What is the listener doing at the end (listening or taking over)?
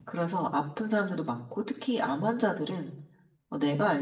listening